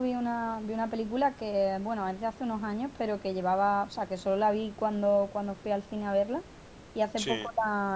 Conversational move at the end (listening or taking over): listening